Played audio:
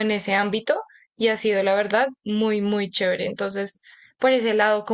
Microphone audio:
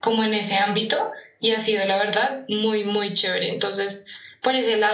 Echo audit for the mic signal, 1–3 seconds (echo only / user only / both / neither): echo only